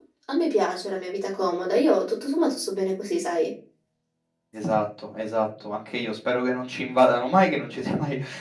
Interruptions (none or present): none